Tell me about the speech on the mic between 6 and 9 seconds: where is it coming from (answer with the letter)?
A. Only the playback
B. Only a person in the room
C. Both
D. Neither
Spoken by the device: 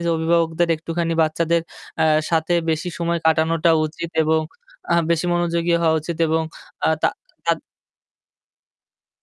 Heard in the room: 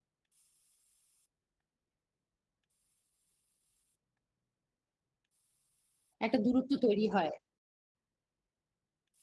B